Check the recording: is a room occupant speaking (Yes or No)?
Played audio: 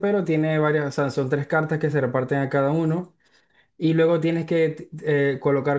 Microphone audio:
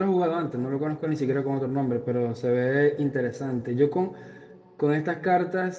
Yes